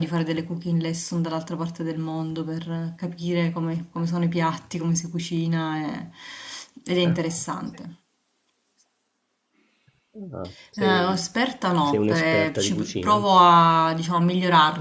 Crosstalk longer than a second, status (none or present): present